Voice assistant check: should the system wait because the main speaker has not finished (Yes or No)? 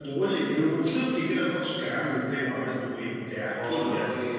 No